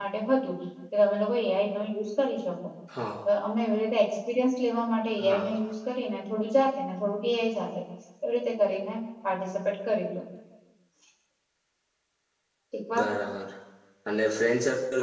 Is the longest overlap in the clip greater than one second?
No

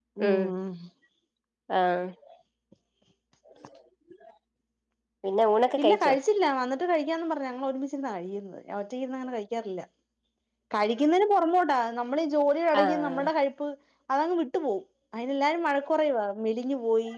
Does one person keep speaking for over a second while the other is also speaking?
No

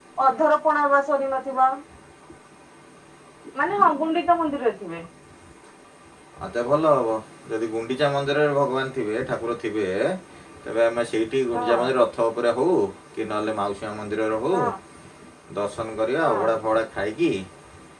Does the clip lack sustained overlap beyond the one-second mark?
Yes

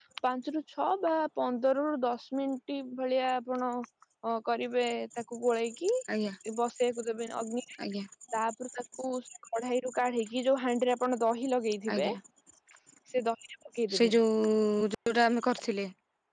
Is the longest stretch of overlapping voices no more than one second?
Yes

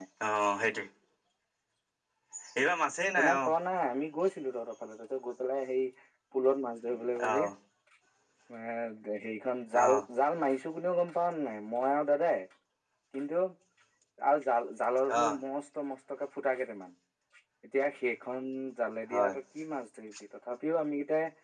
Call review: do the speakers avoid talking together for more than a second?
Yes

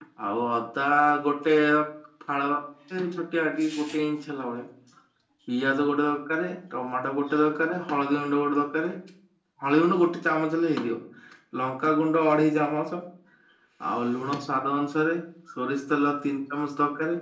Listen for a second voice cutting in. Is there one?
No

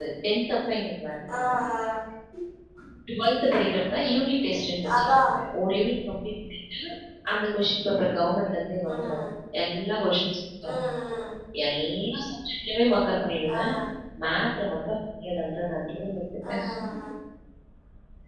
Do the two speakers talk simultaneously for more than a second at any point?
No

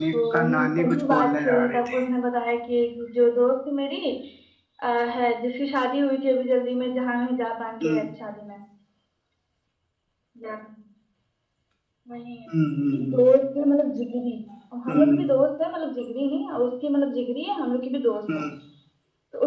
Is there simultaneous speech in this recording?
Yes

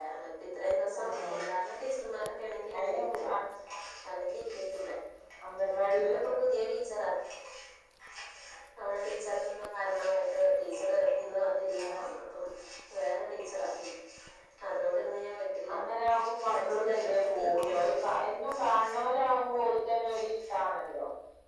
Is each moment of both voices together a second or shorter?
No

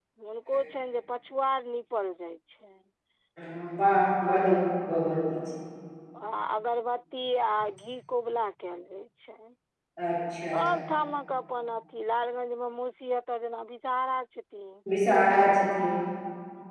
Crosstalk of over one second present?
No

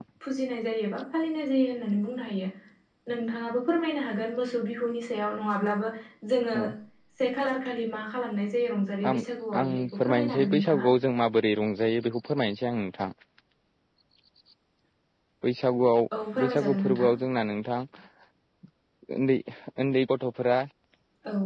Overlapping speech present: Yes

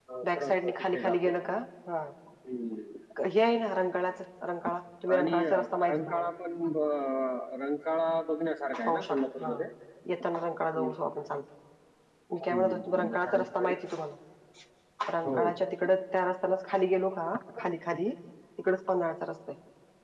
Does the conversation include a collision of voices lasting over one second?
Yes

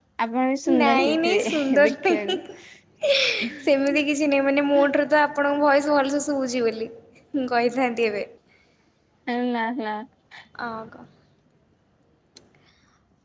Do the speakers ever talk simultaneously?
Yes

